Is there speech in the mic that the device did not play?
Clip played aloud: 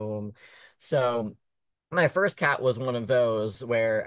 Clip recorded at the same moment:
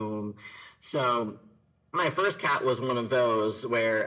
No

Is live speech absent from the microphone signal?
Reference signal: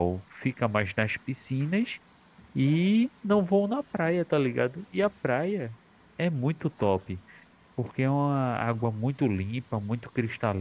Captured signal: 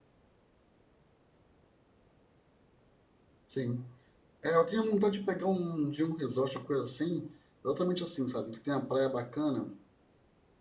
No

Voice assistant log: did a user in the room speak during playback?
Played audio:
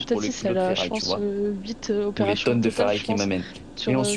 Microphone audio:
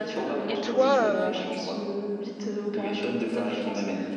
Yes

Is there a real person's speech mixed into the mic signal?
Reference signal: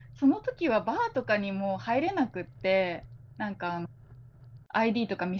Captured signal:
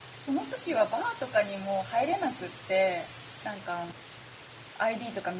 No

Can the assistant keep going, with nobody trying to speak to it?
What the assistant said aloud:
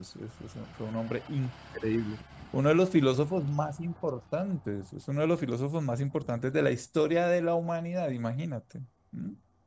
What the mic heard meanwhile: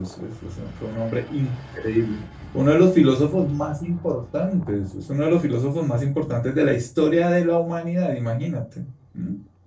Yes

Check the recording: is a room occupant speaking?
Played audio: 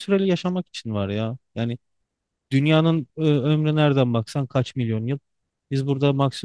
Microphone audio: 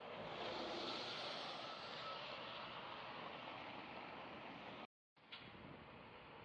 No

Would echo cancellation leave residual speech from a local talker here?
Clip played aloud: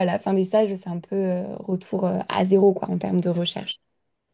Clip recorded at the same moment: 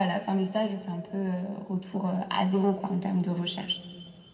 No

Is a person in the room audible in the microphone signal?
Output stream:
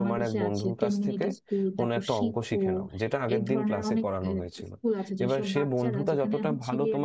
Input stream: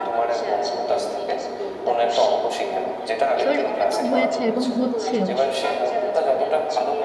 Yes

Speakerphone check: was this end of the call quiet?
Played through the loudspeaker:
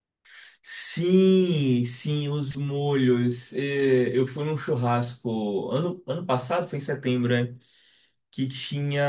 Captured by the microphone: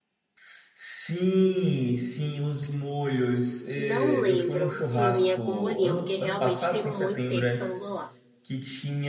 No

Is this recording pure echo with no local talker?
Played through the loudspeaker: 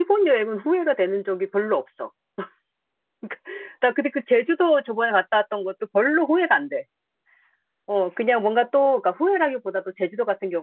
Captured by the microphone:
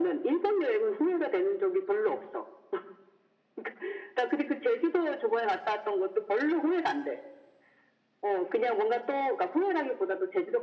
Yes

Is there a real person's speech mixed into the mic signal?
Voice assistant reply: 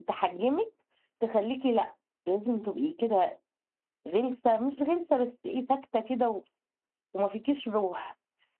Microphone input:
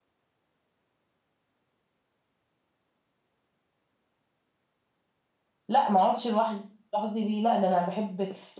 Yes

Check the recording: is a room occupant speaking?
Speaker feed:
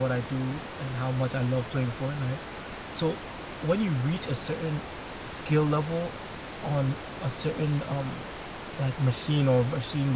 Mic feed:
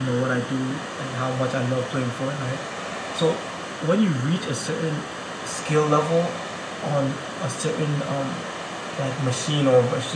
No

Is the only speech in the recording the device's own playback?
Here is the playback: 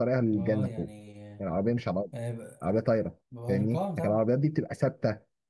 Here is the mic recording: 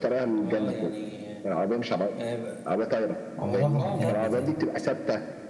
No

